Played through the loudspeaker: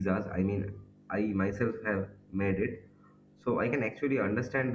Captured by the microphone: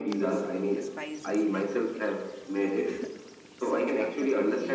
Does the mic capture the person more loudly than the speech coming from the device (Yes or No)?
No